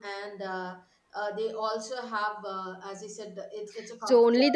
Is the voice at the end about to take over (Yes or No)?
Yes